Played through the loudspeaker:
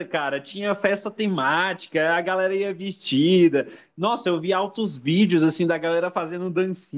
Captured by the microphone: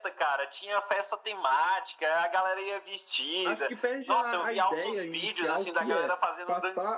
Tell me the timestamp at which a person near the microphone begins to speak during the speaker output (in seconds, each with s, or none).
3.4 s